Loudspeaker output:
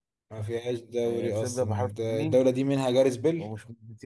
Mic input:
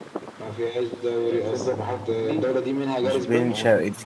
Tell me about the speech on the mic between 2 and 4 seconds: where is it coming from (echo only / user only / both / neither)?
both